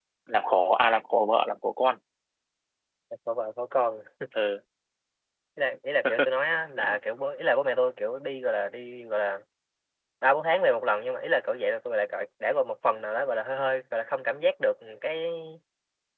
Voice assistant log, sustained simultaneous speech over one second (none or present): none